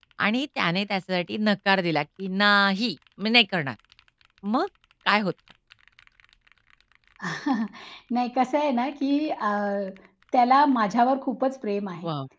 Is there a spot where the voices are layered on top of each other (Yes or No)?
No